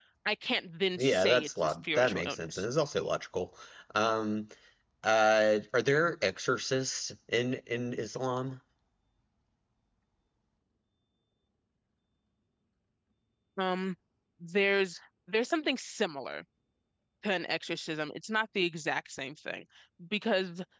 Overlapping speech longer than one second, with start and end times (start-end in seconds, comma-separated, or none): 1.0-2.6